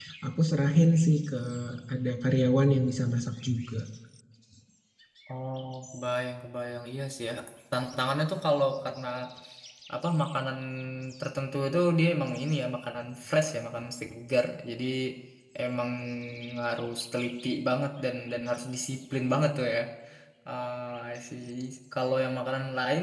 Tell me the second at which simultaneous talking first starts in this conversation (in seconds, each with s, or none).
none